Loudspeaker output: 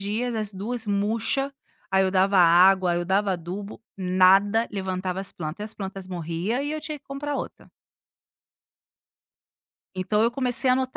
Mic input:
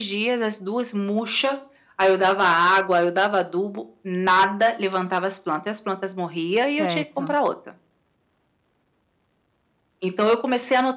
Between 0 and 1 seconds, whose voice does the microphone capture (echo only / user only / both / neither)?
echo only